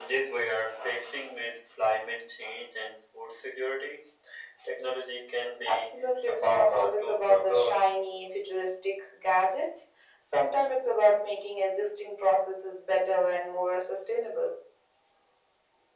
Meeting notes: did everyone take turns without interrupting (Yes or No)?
No